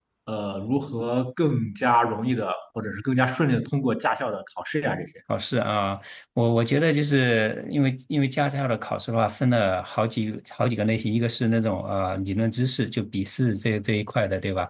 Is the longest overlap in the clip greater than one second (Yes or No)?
No